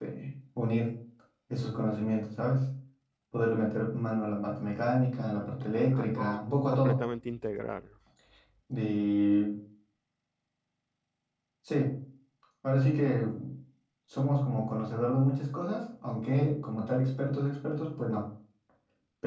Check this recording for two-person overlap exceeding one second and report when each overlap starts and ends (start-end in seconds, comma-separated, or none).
5.4-7.0